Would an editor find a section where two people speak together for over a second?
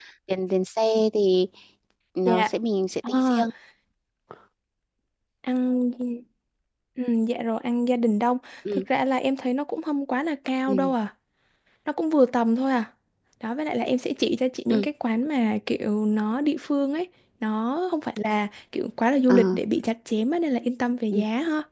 No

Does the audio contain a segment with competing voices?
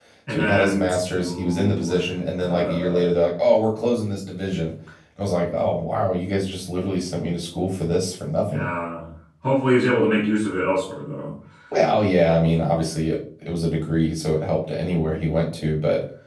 Yes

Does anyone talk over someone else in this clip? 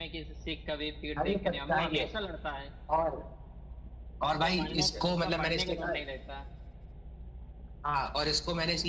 Yes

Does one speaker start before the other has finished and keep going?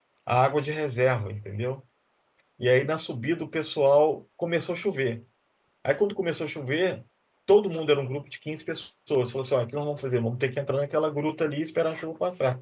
No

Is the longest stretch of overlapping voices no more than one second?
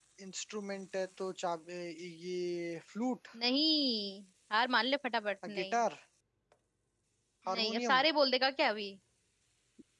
Yes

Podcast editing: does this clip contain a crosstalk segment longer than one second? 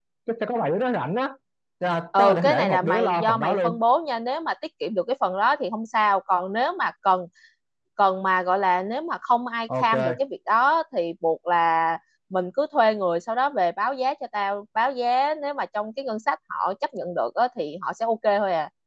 Yes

